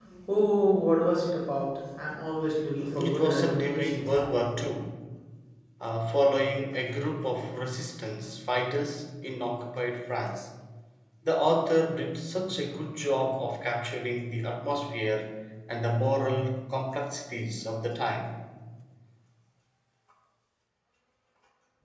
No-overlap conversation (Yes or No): No